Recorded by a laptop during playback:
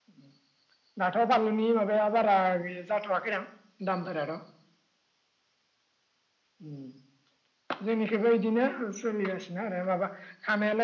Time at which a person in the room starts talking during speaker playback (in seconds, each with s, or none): none